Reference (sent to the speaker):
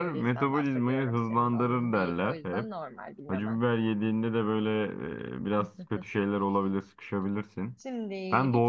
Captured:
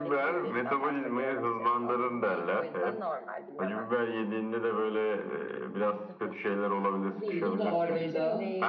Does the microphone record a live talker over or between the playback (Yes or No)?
Yes